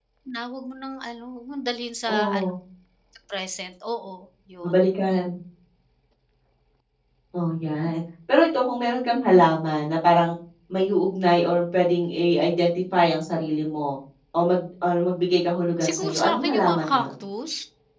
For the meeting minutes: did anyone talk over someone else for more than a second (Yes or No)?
Yes